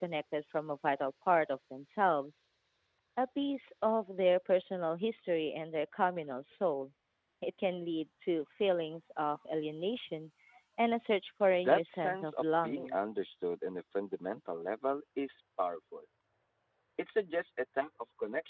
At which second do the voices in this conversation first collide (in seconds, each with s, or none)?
11.6 s